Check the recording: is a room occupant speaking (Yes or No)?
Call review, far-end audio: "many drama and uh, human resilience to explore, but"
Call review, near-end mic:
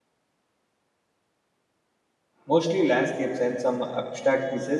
Yes